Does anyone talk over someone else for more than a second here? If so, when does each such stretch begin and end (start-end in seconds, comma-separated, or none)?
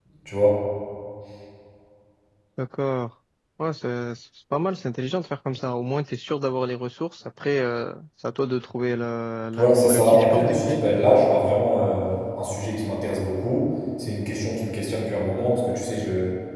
9.6-10.8